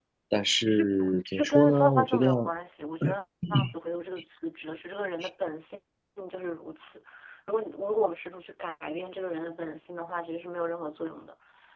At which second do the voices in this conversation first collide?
0.7 s

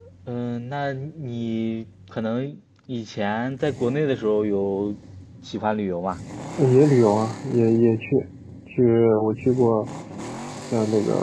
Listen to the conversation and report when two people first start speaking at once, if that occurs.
none

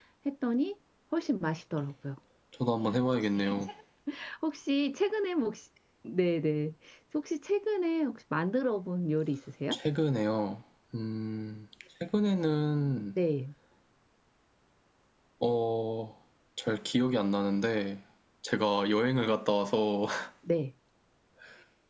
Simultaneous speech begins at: none

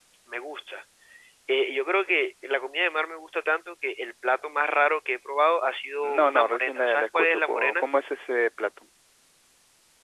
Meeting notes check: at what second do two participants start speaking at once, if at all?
6.0 s

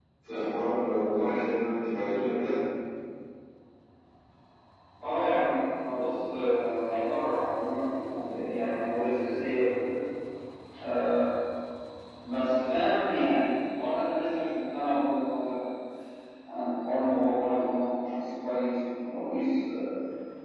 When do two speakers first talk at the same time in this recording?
none

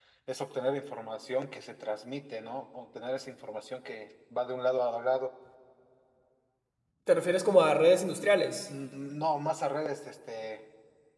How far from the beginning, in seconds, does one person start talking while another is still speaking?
none

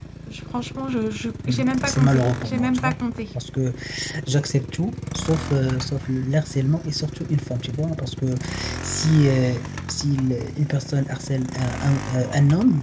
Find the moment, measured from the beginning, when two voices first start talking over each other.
1.5 s

